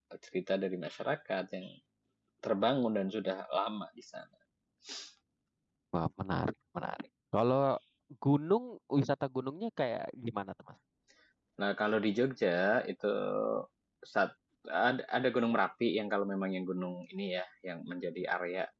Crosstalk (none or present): none